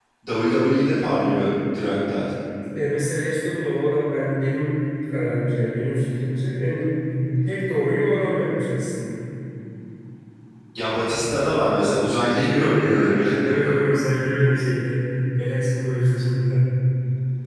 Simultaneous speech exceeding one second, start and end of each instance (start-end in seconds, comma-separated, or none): none